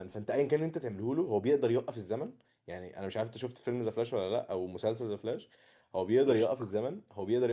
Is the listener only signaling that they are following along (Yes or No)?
Yes